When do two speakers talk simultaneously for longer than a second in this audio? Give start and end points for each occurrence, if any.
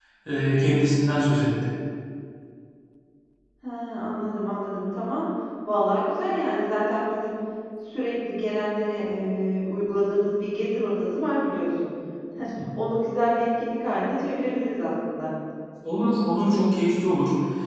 none

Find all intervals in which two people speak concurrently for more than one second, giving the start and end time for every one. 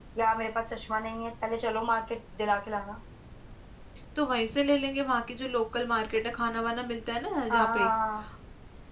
none

